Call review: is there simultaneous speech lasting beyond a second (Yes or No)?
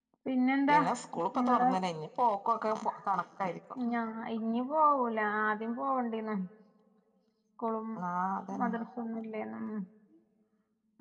No